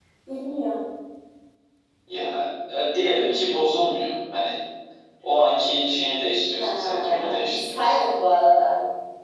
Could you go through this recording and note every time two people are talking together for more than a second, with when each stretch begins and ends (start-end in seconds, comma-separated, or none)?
6.6-8.0